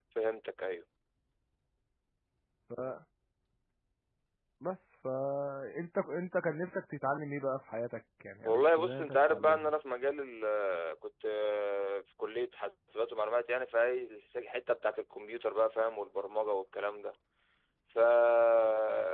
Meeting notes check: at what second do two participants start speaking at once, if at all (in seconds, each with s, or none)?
8.4 s